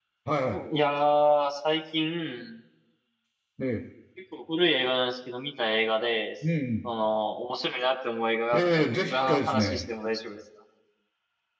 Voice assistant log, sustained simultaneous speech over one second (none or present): present